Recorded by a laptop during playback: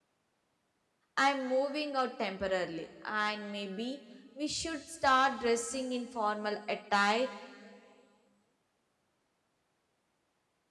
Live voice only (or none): I'm moving out temporarily, and maybe we should start dressing in formal attire